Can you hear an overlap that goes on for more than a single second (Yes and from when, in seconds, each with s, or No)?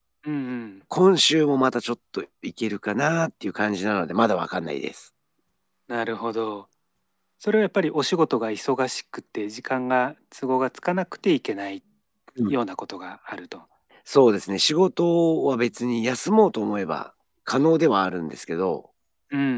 No